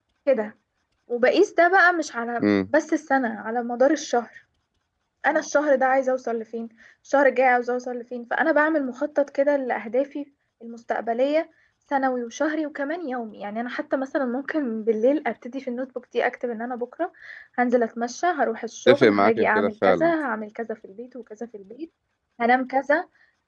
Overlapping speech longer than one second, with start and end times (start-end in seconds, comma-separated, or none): 18.9-20.1